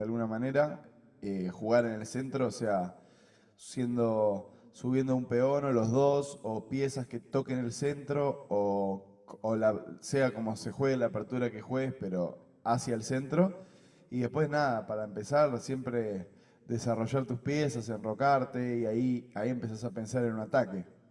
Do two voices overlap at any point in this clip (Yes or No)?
No